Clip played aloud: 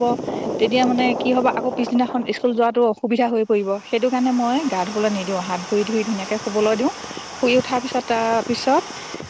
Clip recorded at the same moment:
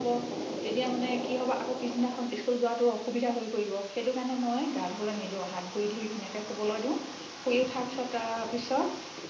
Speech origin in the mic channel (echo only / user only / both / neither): echo only